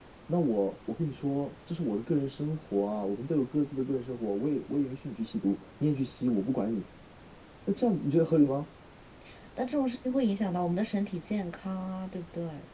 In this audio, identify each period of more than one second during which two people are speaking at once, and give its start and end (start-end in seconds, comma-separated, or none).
none